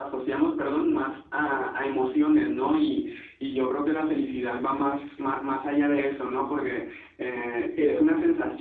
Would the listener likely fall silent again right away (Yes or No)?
Yes